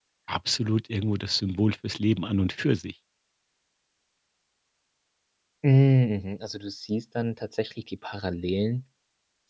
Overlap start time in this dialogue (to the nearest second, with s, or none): none